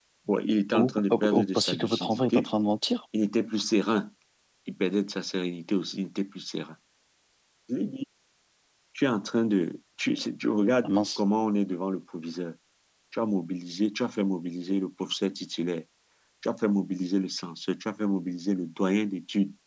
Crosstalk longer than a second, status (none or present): present